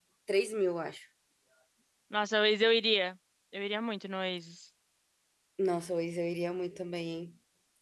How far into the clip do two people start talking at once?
none

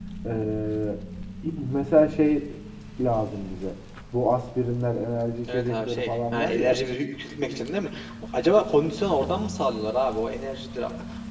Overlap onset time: 5 s

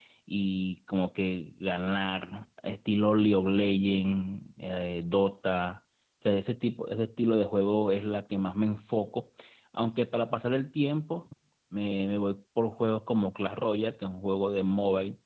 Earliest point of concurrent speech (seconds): none

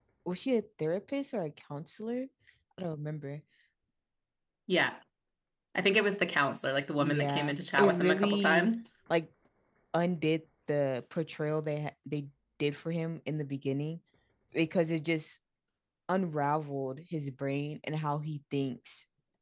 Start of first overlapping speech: 7 s

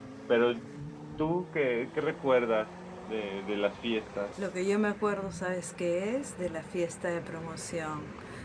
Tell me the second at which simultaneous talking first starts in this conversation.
none

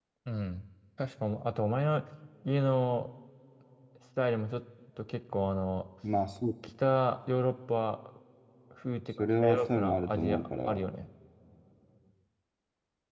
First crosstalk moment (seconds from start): 9 s

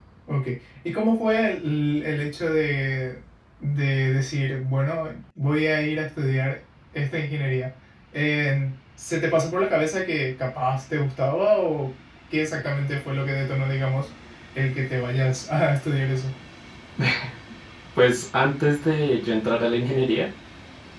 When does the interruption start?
none

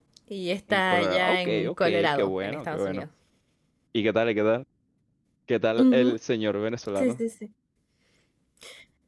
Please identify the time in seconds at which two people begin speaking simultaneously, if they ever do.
1 s

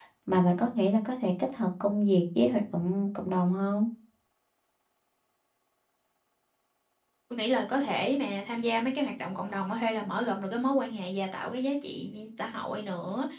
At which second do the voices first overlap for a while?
none

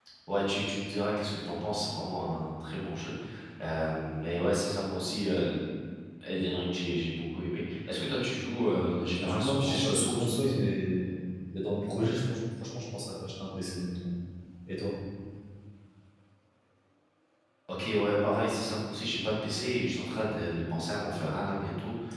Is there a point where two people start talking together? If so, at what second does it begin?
9 s

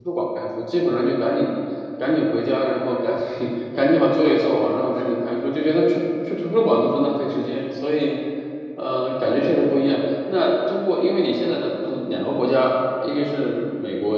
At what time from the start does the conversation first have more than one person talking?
none

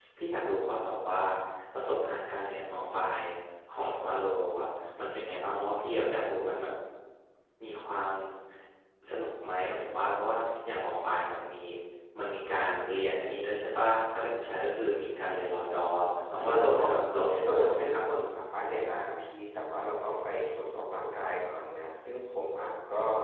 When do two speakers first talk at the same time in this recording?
16 s

